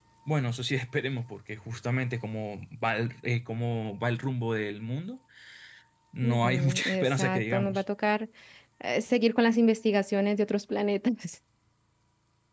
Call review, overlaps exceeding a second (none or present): present